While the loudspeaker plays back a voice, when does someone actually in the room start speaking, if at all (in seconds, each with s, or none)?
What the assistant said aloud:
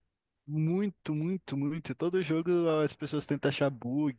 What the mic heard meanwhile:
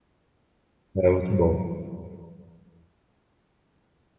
0.9 s